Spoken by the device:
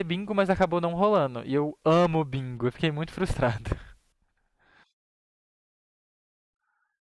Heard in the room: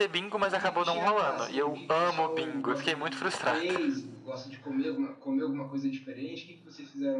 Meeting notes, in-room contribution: present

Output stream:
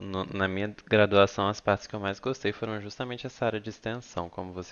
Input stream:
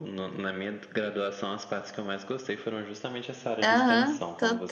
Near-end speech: present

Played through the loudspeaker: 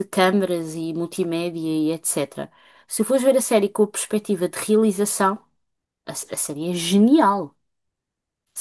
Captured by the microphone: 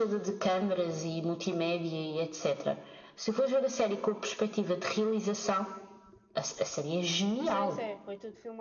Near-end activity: present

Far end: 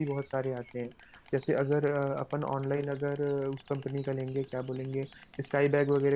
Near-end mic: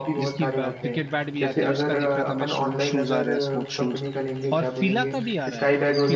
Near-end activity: present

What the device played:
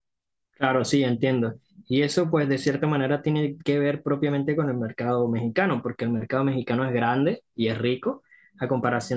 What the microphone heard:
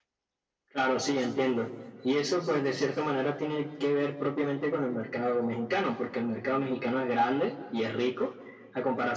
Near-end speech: none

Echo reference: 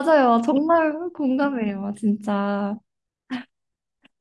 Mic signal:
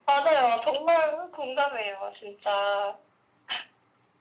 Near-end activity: none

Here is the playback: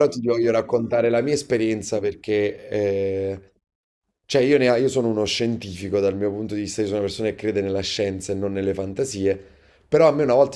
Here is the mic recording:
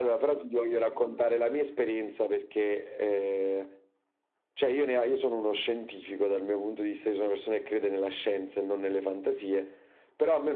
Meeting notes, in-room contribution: none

